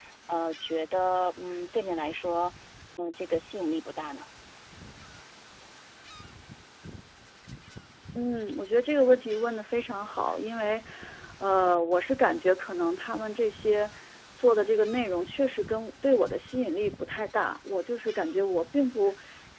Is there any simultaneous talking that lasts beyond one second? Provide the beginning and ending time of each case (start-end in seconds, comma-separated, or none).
none